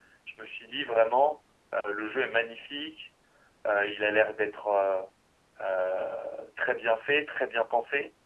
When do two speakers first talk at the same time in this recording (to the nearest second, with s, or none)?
none